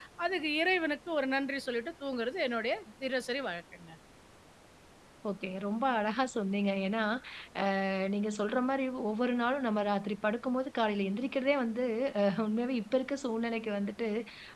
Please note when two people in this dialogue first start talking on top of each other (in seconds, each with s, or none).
none